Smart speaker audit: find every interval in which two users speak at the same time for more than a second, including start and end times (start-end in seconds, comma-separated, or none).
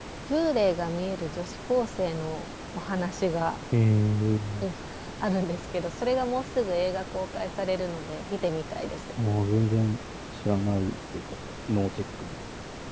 none